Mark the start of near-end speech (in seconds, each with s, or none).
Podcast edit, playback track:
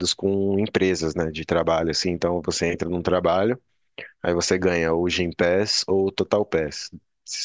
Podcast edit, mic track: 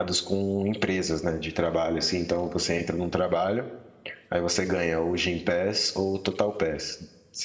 none